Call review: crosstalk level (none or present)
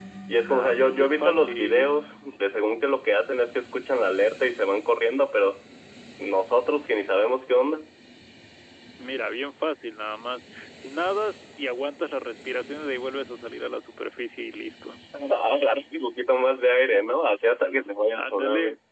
present